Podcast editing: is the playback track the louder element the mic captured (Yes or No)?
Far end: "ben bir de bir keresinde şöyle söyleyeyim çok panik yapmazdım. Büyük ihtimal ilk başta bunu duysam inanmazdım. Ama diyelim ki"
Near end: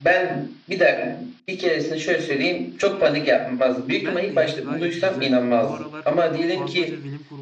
Yes